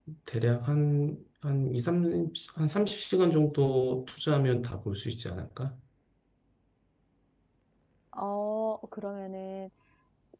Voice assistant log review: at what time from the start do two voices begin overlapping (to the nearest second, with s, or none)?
none